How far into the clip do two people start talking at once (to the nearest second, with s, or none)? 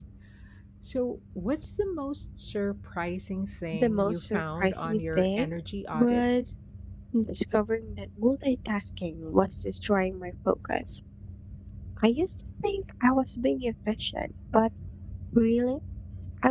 4 s